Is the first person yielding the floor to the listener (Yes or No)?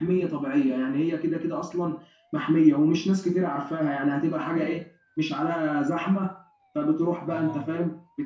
No